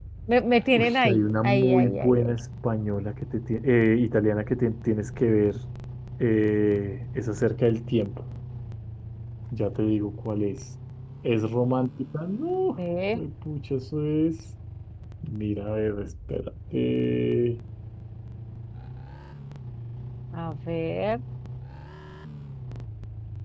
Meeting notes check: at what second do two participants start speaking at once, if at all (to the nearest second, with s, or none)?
1 s